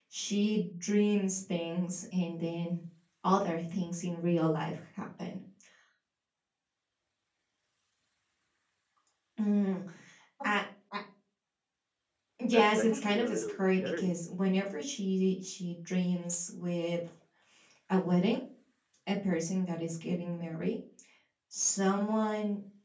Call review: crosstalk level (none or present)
present